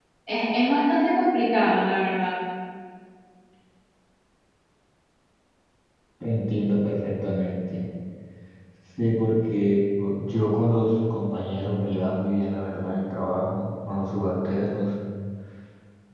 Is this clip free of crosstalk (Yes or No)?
Yes